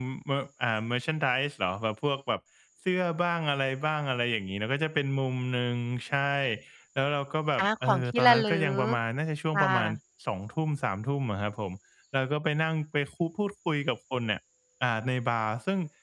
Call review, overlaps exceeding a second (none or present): present